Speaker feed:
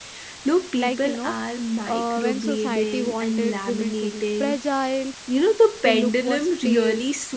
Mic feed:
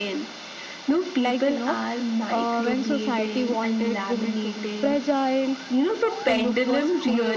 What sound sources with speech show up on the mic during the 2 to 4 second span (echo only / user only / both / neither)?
echo only